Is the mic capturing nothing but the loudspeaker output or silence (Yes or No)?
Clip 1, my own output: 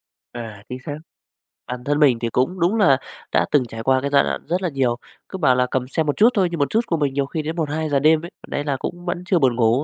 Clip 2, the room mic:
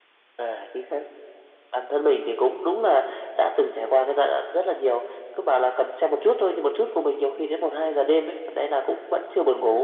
Yes